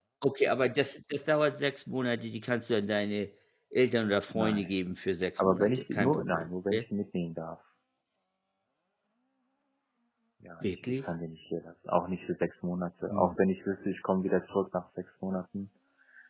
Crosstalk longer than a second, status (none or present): present